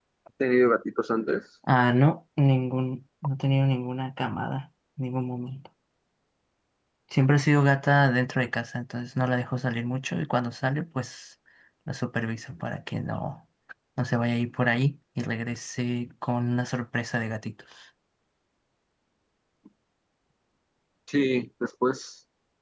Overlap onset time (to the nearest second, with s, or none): none